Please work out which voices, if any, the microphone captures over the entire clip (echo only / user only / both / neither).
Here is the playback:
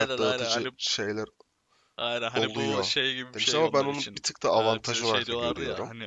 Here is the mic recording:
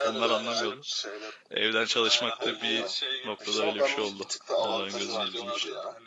both